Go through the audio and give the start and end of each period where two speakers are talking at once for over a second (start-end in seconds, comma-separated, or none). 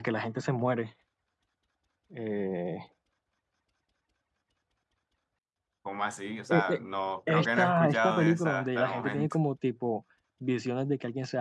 7.3-9.4